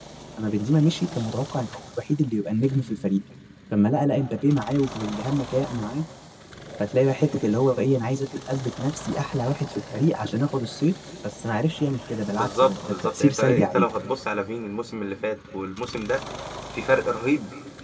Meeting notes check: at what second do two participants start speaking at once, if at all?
12.3 s

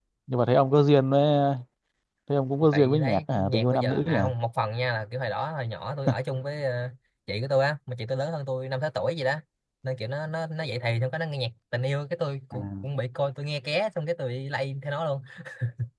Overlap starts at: 2.7 s

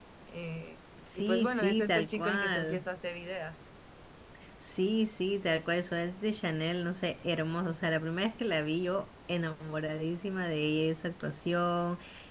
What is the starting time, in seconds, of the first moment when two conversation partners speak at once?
1.1 s

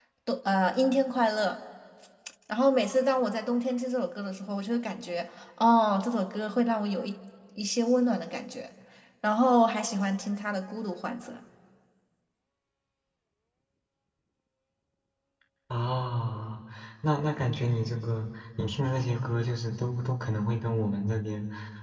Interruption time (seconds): none

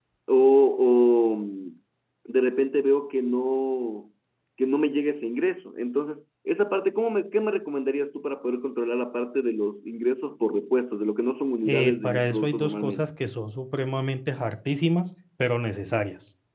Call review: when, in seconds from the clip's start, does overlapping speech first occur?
11.6 s

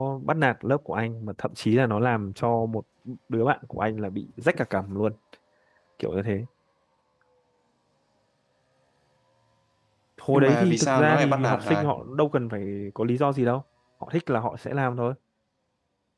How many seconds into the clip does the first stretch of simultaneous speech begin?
10.3 s

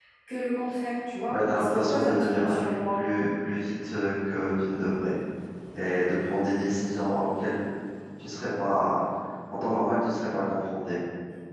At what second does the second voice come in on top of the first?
1.3 s

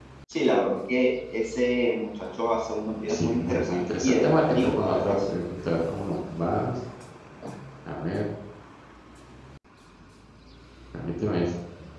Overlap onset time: 3.1 s

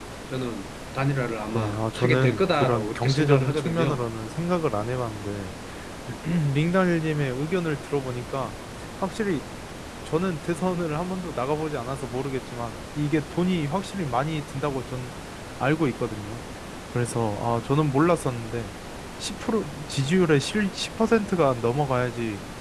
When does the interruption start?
1.5 s

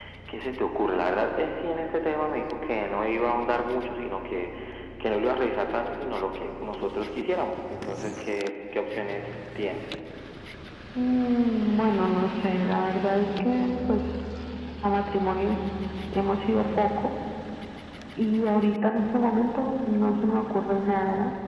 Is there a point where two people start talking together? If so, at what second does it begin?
none

